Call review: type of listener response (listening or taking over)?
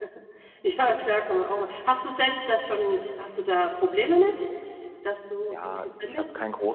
taking over